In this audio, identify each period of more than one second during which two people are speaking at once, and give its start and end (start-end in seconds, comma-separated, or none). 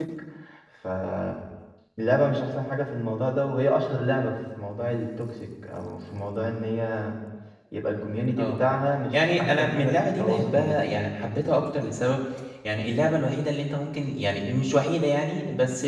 9.1-11.0